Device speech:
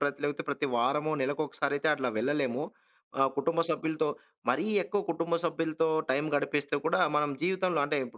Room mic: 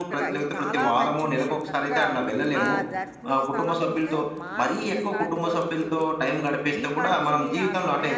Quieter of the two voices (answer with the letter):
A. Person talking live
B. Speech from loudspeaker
A